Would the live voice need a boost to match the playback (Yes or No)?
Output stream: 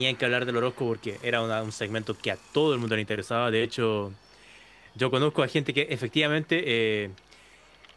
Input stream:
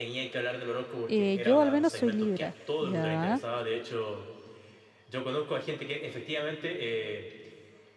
No